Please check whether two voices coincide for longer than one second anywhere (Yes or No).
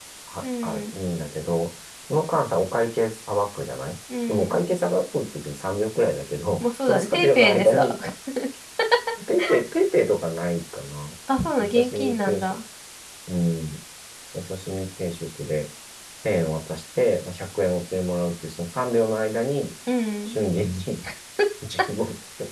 Yes